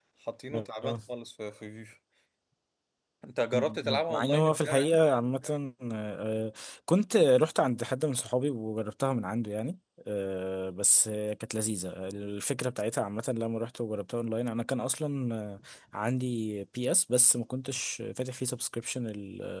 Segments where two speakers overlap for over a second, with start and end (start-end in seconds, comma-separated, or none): 3.5-5.0